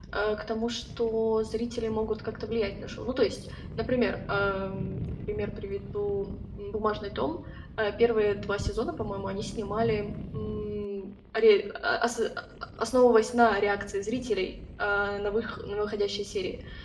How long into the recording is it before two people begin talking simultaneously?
none

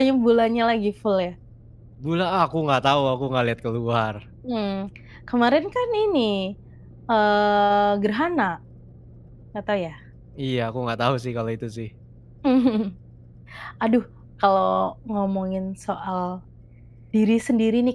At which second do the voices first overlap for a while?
none

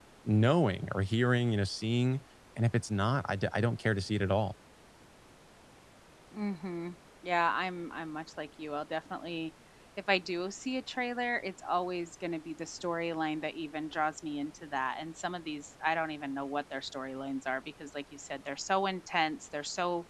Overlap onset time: none

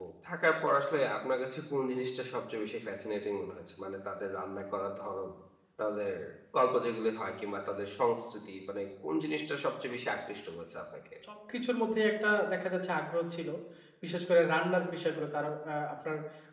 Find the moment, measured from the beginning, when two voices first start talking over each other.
none

